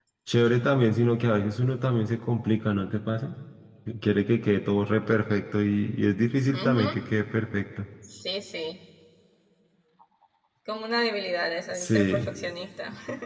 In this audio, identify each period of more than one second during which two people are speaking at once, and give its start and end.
none

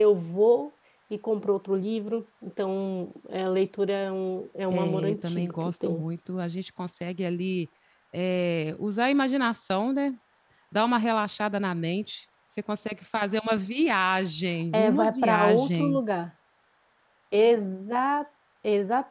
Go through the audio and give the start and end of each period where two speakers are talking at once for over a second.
4.7-6.0, 14.7-16.0

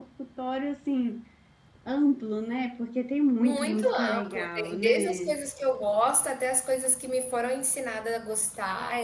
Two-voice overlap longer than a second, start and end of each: 3.4-5.3

